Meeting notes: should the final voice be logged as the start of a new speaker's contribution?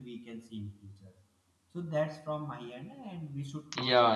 Yes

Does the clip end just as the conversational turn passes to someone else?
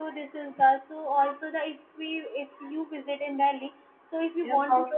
Yes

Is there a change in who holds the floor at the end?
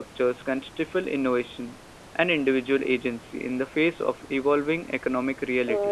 Yes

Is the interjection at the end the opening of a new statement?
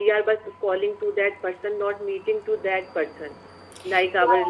Yes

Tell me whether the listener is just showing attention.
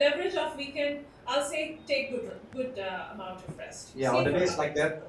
No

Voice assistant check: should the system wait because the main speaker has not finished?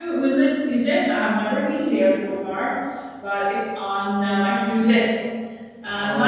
No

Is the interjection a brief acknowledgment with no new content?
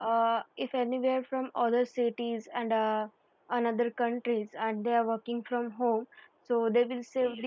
Yes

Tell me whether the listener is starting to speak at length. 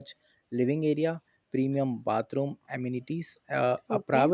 No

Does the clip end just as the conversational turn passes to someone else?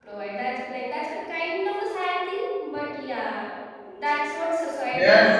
Yes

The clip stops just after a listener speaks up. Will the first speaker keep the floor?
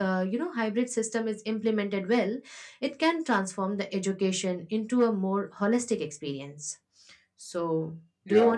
No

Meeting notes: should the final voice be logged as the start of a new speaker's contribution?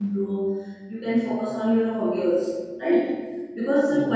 No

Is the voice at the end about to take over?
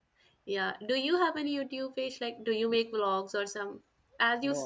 Yes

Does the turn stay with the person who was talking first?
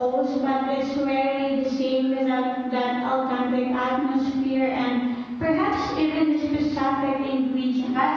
No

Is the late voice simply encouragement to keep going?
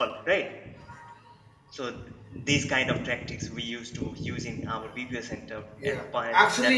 No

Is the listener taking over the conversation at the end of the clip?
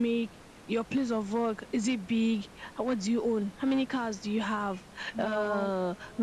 No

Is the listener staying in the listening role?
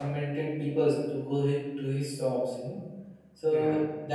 Yes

